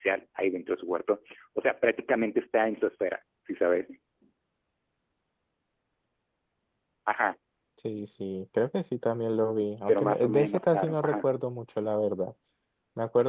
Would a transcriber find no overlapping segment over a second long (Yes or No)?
No